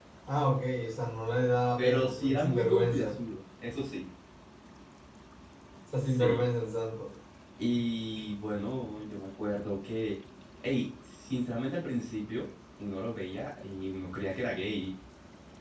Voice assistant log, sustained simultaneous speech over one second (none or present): present